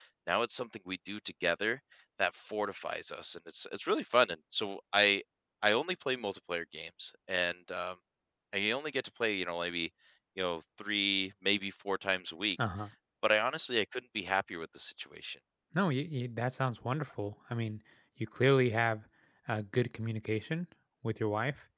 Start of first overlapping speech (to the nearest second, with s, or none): none